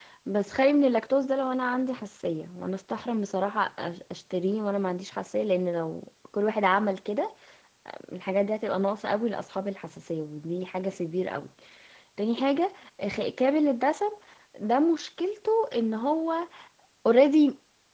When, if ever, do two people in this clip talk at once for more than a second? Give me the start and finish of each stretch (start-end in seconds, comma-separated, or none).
none